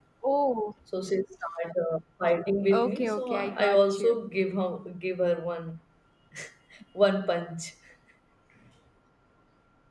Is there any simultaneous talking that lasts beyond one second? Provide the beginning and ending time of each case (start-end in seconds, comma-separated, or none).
2.8-4.2